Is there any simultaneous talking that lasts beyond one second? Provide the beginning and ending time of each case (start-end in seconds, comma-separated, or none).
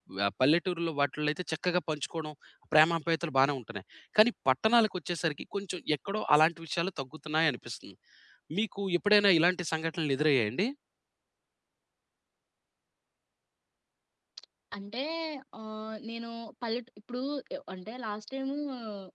none